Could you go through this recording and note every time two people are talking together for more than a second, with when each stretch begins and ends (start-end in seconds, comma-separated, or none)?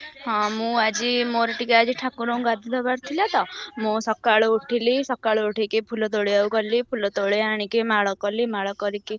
none